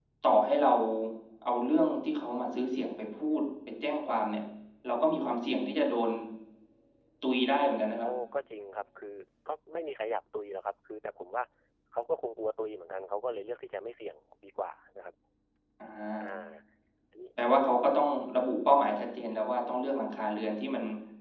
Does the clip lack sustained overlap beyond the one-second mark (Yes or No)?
Yes